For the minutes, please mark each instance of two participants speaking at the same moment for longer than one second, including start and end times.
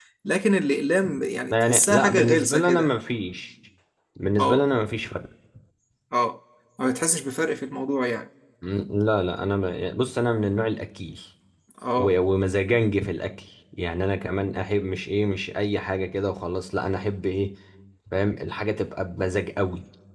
1.5-2.9

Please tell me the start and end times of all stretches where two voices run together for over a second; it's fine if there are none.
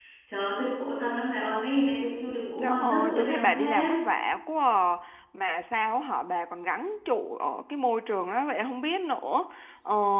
2.6-3.9

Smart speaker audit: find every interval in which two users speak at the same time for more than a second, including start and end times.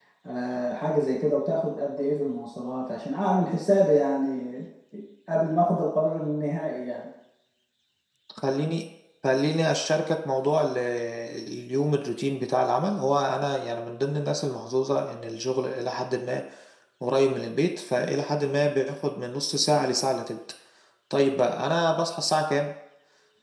none

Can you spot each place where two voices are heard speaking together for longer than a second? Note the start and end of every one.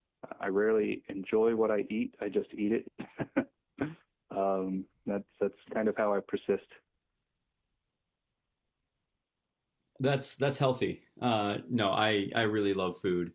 none

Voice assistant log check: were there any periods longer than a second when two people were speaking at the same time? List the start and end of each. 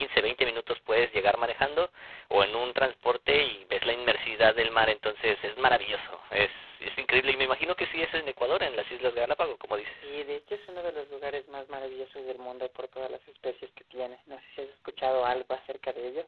none

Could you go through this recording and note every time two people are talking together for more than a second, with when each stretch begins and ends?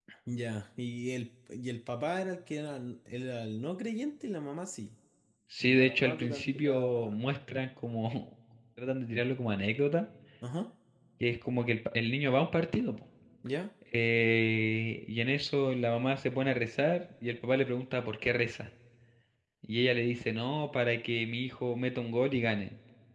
5.6-7.1

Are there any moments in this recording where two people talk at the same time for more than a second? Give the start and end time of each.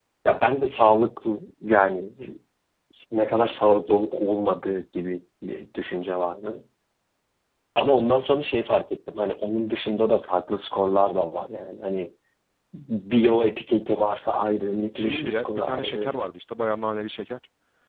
14.9-16.2

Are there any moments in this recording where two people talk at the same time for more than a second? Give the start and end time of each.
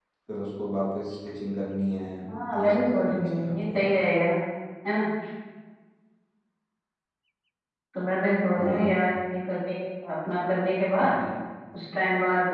2.6-3.8

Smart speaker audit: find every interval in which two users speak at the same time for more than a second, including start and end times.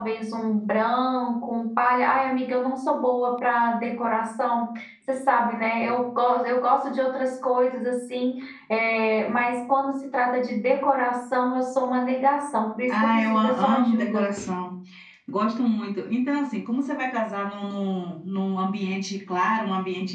12.9-14.3

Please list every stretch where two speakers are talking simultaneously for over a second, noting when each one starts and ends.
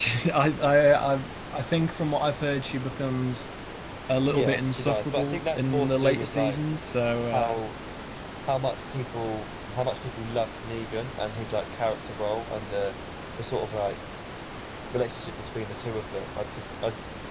4.3-6.6

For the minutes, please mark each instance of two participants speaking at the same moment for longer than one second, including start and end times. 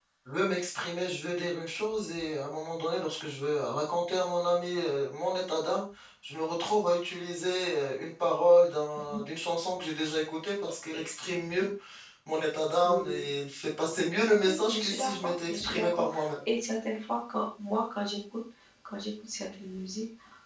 14.4-16.0

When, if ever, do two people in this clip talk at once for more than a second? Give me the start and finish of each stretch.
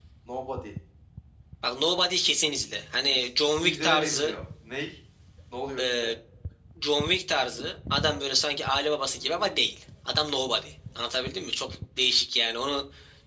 3.1-4.3

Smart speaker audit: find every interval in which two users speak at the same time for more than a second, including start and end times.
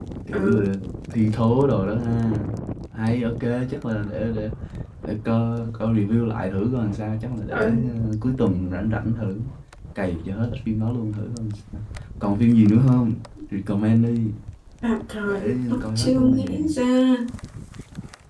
15.2-16.7

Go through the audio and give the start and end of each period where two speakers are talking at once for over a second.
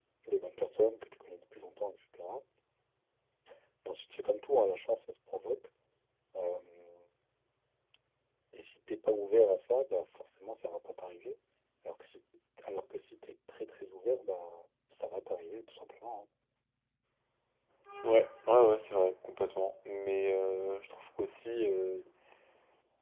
none

